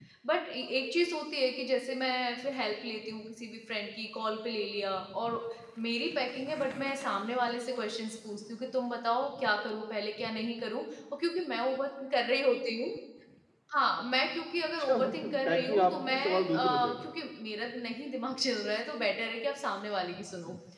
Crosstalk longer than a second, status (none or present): present